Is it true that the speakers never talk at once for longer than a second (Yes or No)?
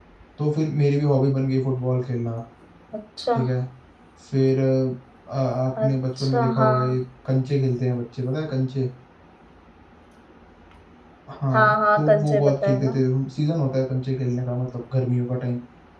No